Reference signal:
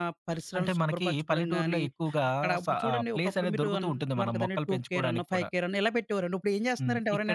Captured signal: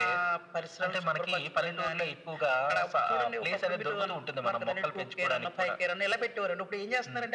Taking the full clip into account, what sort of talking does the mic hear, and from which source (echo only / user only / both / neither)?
echo only